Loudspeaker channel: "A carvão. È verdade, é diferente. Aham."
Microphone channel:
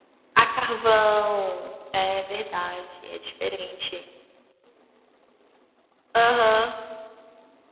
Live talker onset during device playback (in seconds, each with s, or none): none